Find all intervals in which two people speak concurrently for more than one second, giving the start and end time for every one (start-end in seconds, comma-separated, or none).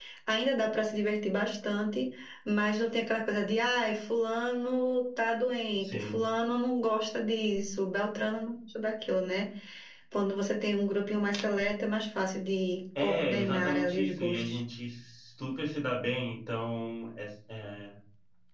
13.0-14.6